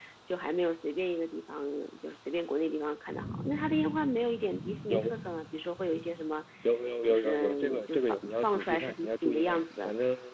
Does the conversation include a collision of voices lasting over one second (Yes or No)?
Yes